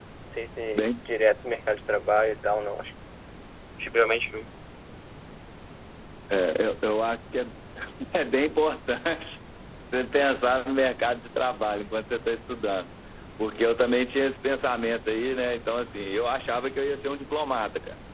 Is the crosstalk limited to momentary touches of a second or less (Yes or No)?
Yes